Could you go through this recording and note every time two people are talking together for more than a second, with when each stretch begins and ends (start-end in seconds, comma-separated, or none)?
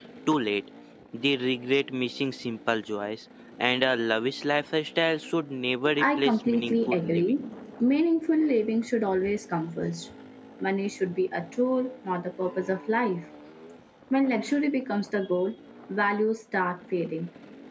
6.0-7.4